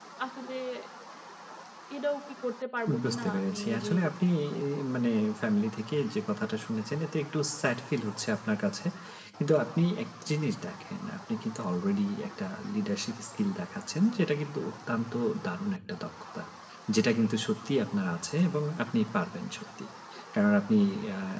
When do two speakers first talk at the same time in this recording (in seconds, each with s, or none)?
2.9 s